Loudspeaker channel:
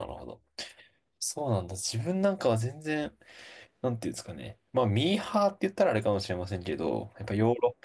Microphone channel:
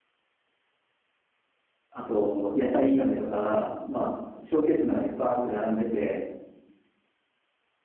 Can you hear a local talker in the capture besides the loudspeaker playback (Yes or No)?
Yes